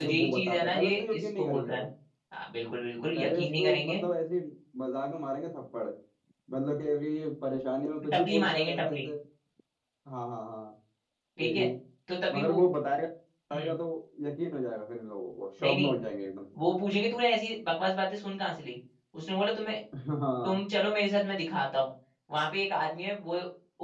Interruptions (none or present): present